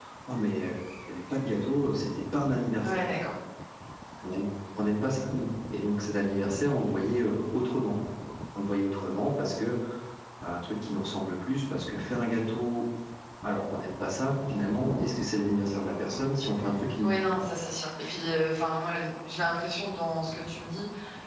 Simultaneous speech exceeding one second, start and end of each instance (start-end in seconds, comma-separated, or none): none